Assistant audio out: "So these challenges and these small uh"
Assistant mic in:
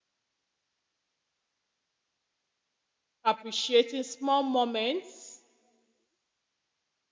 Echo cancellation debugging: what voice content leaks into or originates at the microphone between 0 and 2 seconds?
neither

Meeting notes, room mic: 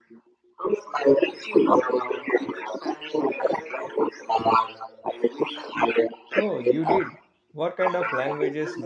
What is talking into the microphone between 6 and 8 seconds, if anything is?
both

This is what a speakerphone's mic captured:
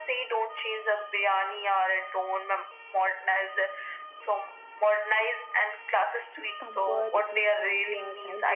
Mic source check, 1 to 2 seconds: echo only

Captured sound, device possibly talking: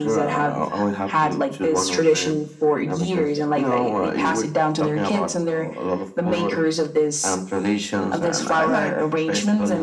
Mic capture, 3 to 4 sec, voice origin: echo only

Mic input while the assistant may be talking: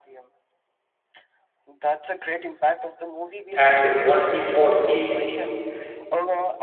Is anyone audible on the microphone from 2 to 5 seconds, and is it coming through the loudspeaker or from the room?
both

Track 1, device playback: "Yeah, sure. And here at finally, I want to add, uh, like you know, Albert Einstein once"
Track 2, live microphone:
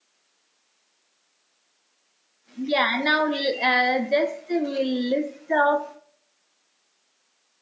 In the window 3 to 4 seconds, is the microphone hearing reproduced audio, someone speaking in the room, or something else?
user only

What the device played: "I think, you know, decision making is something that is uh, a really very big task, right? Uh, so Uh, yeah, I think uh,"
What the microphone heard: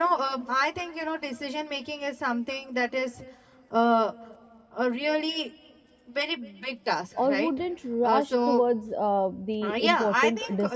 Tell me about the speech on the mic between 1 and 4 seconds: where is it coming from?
echo only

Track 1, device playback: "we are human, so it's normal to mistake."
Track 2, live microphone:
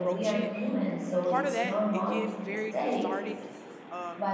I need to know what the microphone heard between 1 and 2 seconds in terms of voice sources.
both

